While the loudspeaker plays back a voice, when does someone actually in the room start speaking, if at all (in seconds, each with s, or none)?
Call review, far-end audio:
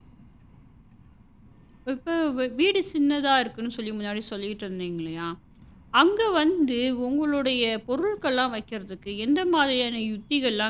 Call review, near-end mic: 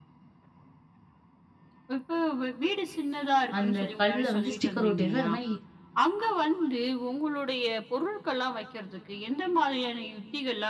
3.6 s